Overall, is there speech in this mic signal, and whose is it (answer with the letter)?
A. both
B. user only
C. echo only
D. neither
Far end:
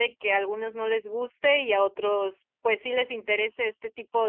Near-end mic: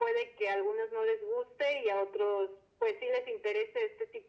C